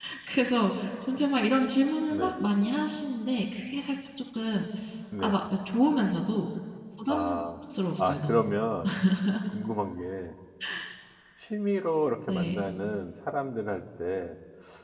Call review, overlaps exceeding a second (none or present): none